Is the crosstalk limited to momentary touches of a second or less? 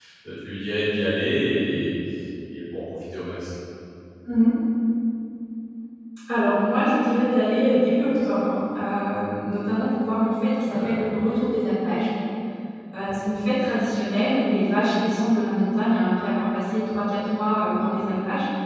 Yes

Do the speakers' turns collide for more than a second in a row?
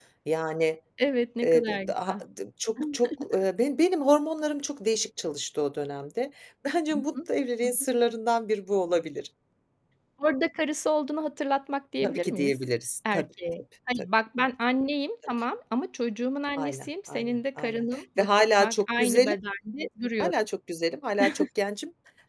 Yes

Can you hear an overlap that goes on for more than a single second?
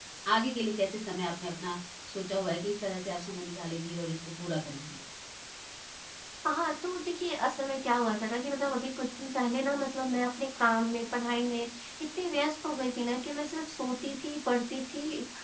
No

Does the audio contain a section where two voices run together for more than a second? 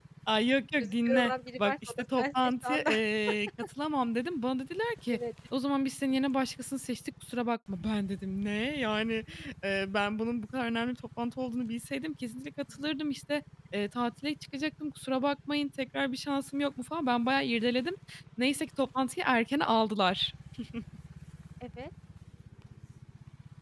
Yes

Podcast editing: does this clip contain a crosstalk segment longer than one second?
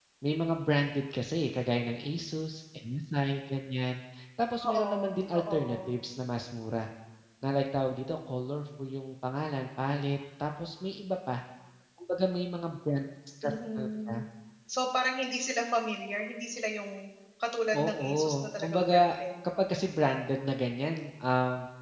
Yes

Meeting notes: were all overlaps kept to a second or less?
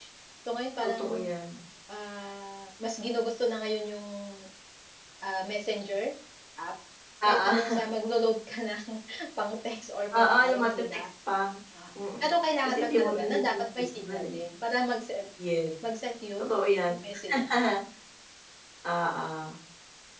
No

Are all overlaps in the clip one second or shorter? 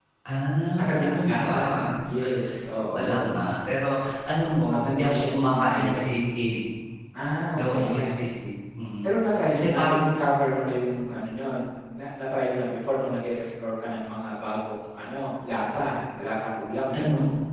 No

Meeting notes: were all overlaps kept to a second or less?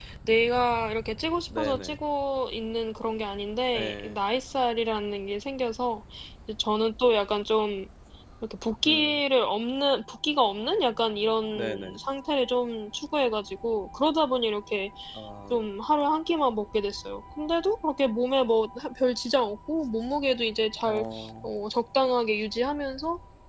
Yes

